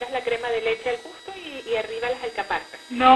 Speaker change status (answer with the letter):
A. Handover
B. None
B